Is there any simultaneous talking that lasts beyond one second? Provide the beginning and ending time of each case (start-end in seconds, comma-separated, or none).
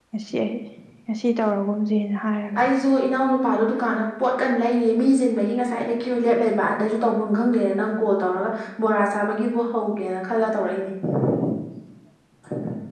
none